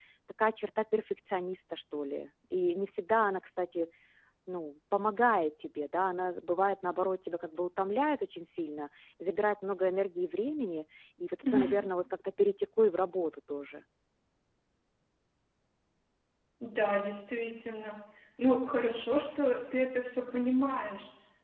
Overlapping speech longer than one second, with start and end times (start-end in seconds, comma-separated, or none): none